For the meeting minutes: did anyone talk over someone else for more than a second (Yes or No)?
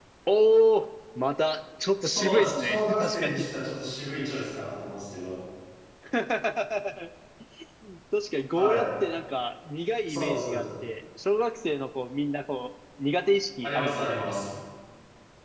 Yes